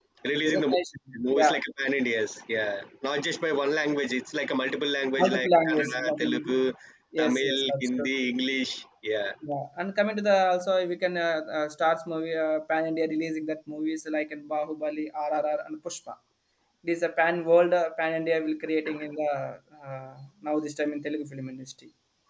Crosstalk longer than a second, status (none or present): present